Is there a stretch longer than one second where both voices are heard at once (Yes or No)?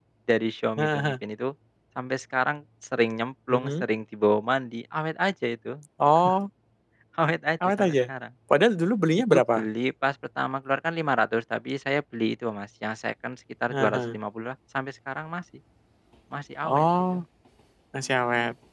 No